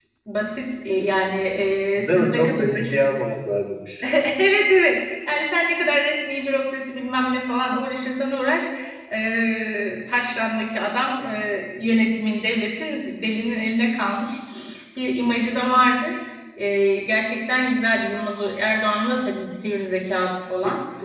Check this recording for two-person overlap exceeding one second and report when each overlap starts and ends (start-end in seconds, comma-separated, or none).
2.0-3.2